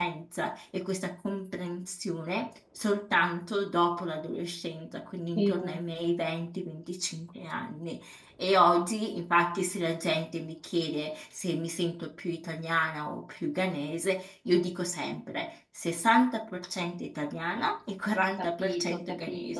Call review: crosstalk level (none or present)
present